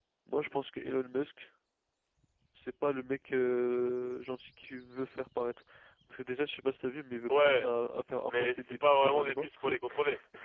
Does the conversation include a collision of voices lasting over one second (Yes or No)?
Yes